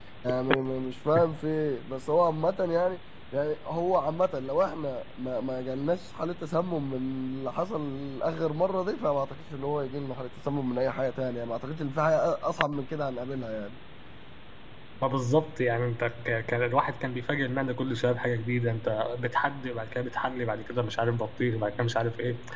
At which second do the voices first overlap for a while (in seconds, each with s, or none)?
none